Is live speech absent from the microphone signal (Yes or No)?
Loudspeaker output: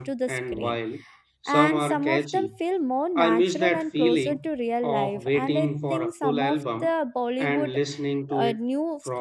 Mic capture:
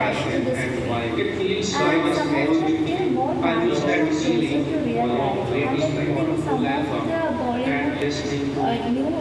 No